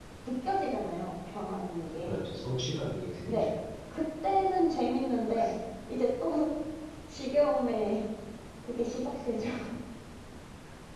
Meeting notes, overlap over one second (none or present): none